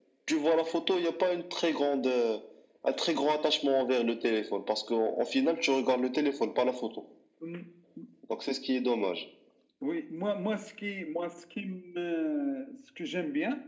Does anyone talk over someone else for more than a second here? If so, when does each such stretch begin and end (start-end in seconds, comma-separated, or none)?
none